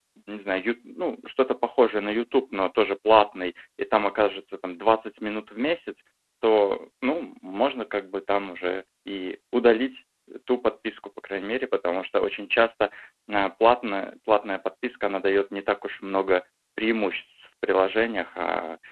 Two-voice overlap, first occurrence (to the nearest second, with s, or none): none